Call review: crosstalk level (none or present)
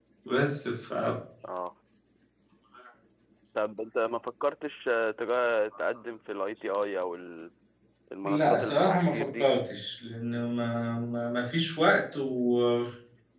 present